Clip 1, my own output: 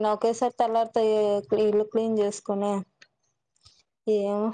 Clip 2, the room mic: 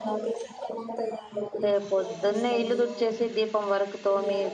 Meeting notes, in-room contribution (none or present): present